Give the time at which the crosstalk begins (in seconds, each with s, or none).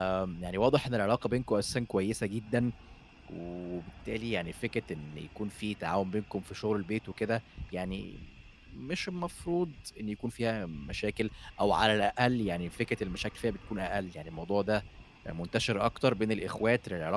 none